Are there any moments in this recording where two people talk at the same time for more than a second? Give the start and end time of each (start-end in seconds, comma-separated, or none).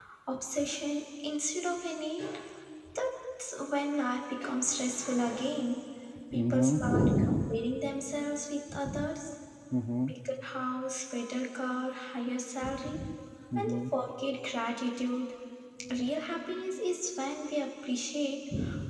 6.3-7.6